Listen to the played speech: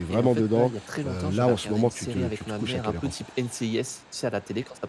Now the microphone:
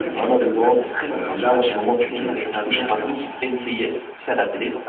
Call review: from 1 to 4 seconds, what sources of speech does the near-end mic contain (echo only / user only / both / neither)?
echo only